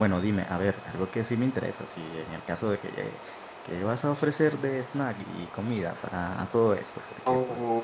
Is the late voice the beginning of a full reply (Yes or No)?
Yes